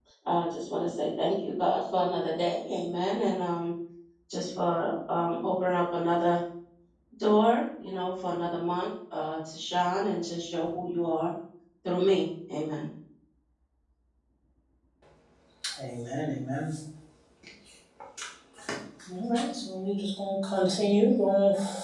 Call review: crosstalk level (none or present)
none